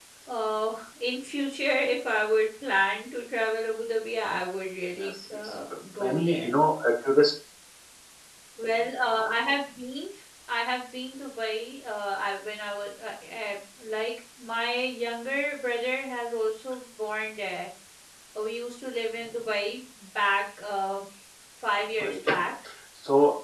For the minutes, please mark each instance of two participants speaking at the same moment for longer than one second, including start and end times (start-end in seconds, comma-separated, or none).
4.9-6.5